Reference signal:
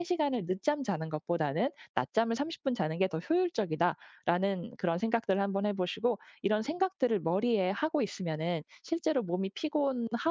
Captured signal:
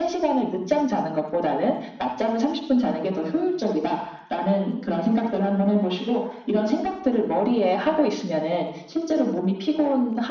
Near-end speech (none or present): none